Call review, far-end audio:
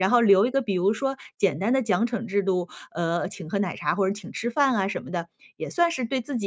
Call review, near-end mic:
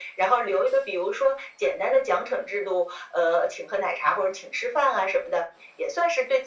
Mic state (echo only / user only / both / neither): echo only